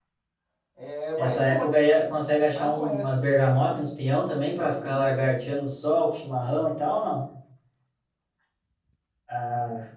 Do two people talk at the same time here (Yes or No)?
Yes